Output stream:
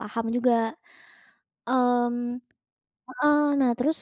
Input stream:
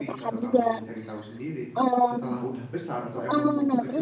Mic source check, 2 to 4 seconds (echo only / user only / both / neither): both